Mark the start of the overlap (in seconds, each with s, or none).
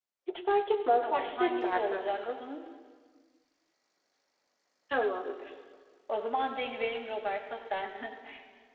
1.0 s